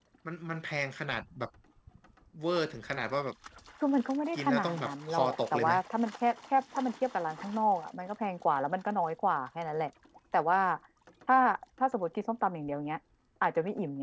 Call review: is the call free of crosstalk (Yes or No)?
No